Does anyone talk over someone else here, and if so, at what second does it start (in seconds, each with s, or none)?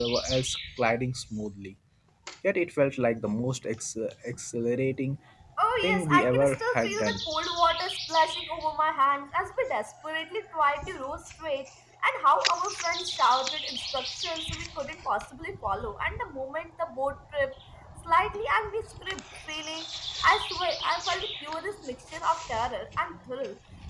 5.9 s